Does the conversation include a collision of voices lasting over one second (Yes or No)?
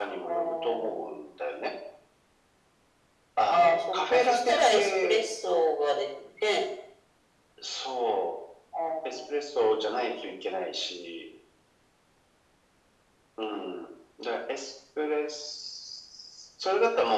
Yes